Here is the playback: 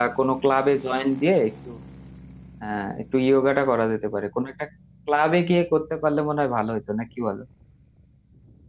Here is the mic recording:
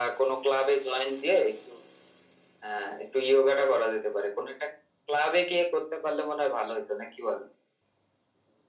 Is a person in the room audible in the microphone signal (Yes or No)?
No